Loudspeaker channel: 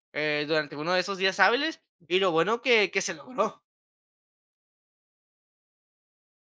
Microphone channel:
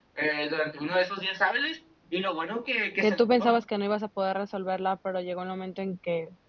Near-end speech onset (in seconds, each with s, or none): 3.0 s